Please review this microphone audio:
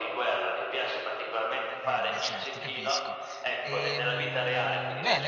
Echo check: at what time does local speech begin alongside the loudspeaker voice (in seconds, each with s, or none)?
1.8 s